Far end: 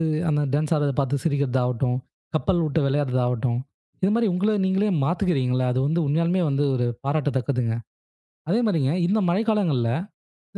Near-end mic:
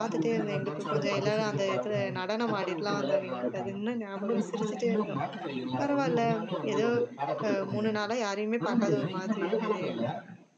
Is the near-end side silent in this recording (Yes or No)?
No